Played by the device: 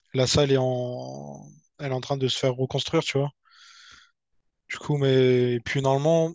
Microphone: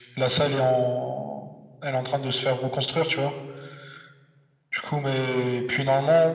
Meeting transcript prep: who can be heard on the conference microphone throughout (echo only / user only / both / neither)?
echo only